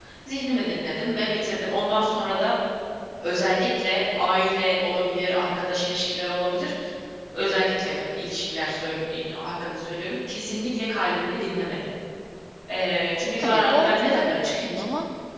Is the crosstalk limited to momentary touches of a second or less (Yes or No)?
No